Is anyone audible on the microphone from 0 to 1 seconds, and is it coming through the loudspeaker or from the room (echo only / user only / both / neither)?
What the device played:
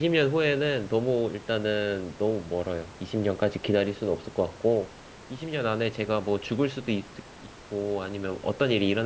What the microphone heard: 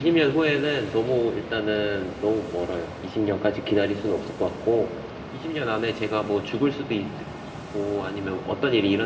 echo only